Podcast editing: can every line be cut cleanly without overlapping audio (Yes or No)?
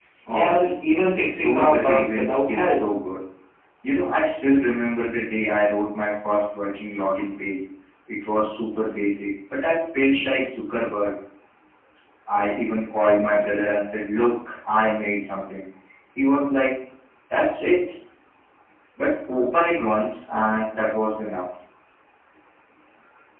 No